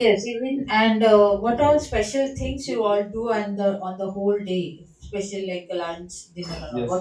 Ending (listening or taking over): taking over